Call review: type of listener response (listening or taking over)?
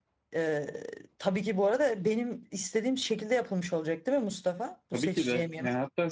taking over